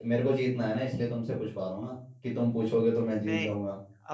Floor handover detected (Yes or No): Yes